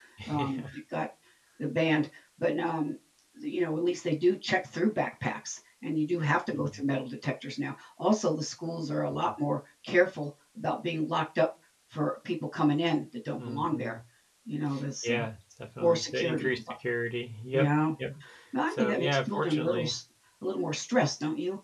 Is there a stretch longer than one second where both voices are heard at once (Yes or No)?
Yes